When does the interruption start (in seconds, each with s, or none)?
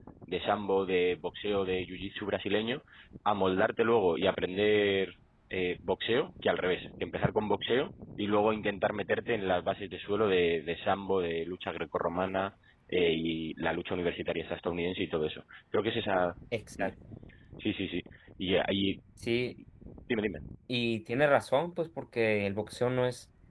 none